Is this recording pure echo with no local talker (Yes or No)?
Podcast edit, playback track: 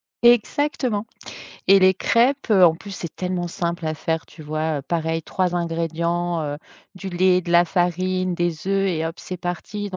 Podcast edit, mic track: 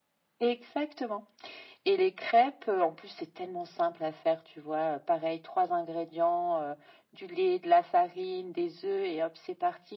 Yes